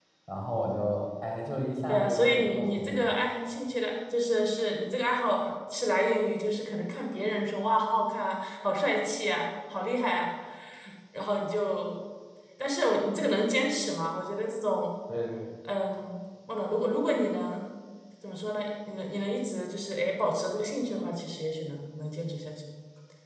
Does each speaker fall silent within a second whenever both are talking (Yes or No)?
No